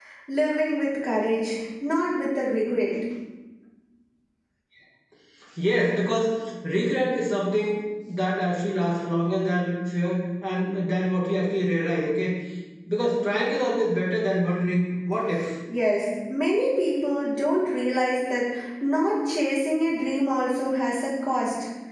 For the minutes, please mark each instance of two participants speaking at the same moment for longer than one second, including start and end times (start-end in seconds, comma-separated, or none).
none